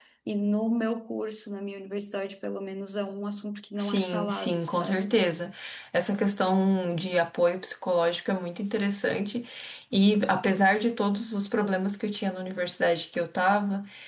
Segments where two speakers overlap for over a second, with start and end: 3.8-5.1

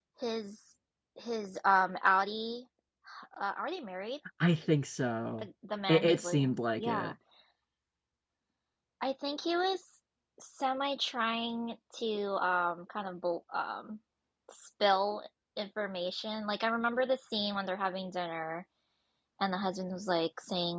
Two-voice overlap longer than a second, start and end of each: 5.9-7.1

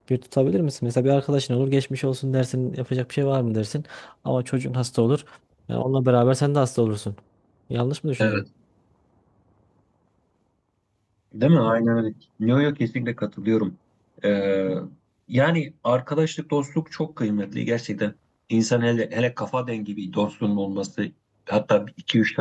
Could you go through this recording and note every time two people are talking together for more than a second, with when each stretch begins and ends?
none

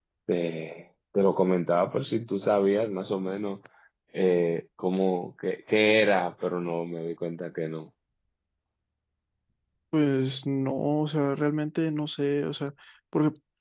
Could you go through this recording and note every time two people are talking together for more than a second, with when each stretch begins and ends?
none

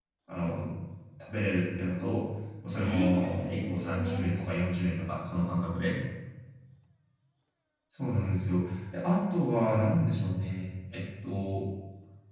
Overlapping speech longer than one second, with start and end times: 2.7-4.3

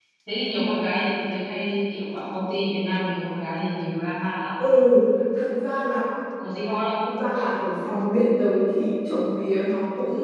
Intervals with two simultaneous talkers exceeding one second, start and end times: none

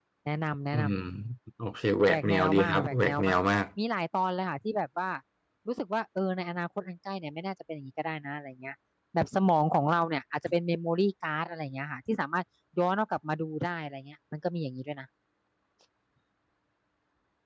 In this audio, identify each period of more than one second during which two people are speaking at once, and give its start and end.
2.1-3.4

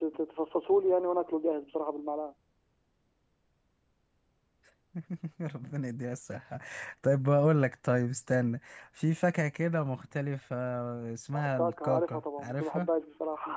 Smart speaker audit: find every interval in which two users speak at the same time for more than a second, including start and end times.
11.3-12.9

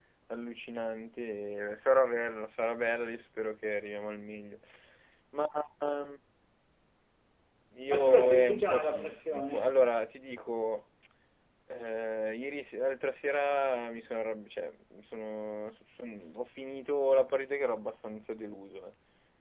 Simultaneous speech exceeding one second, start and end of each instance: 7.9-9.7

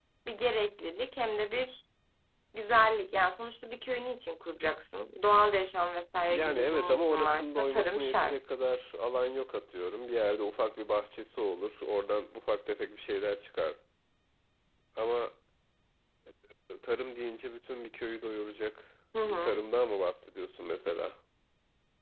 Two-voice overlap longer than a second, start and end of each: 6.3-8.4

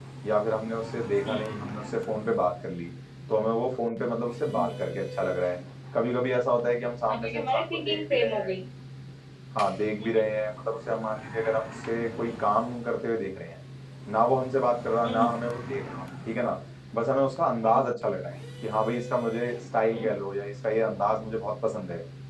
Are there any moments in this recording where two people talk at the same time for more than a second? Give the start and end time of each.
7.1-8.5

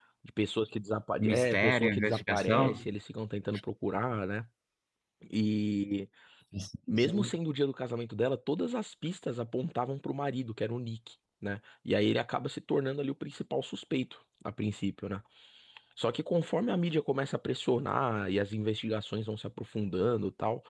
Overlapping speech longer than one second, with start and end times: 1.2-2.9

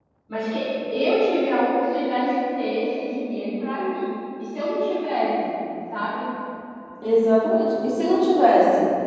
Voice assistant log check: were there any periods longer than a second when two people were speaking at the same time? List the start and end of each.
none

